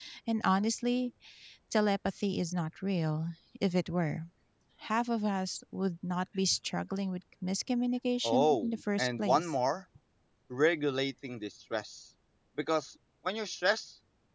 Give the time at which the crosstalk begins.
8.2 s

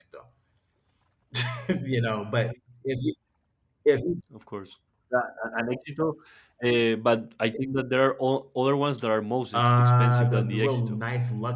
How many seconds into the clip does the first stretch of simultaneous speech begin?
9.5 s

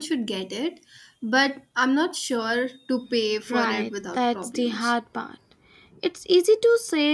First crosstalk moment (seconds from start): 3.5 s

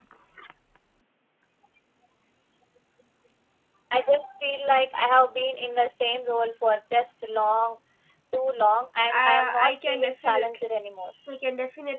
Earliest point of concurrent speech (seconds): 9.1 s

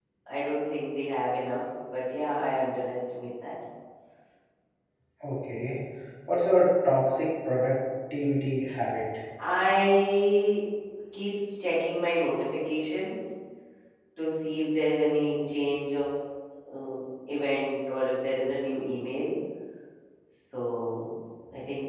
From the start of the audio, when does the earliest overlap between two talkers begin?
none

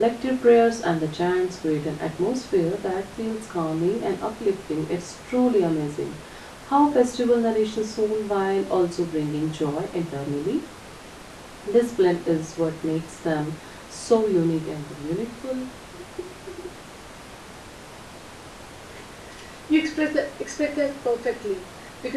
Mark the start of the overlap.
none

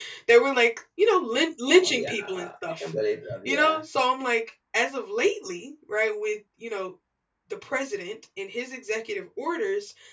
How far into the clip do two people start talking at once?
1.7 s

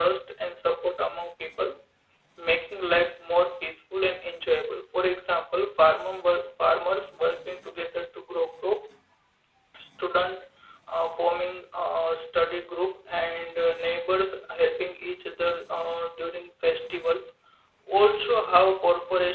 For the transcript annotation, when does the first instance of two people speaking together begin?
none

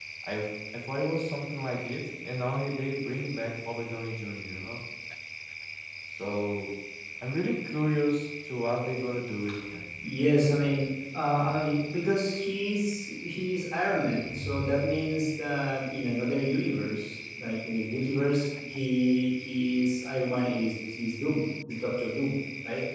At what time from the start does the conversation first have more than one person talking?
none

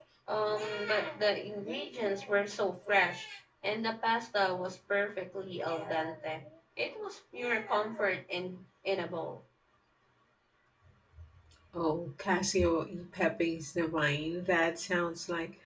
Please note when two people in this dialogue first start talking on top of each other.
none

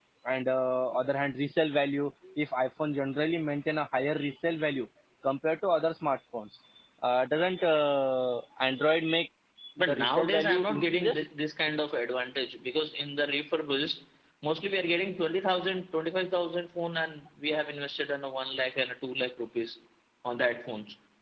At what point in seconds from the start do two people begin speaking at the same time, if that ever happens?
9.8 s

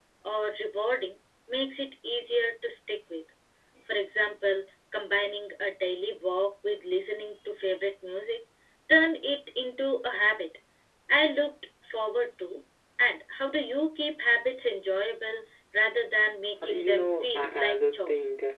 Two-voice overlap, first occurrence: 16.6 s

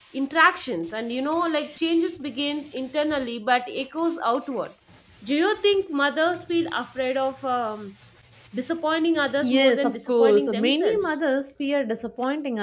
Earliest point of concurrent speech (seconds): 9.4 s

